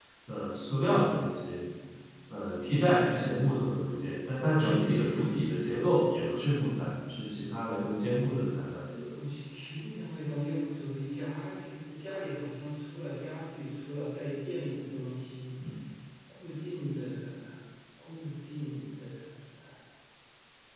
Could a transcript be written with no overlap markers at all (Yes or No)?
Yes